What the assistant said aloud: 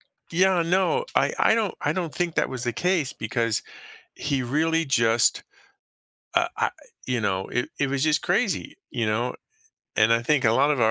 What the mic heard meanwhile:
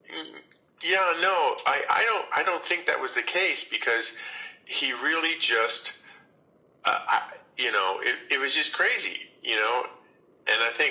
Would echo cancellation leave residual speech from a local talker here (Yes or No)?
No